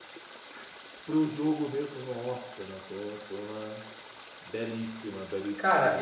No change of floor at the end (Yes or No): No